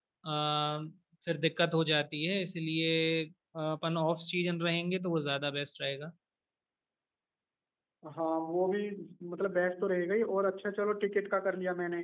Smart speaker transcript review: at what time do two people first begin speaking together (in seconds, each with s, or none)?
none